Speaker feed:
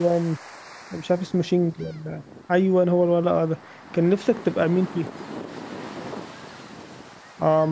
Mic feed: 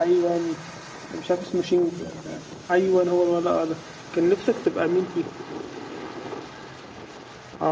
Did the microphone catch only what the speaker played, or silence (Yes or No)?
Yes